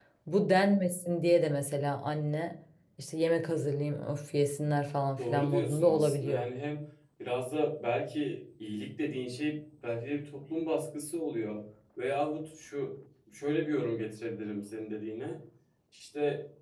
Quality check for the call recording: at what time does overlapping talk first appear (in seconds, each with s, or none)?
5.2 s